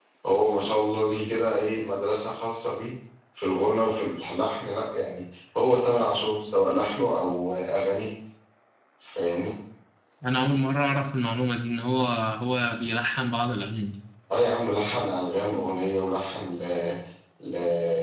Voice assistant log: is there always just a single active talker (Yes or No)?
Yes